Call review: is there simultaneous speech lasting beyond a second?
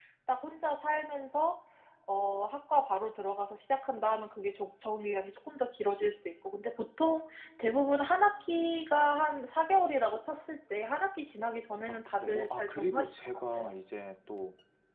Yes, from 11.9 s

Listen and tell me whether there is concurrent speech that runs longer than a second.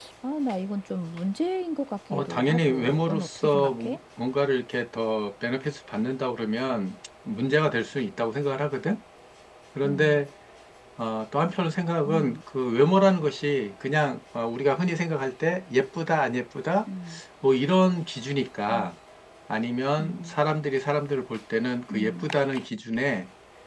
Yes, from 2.1 s

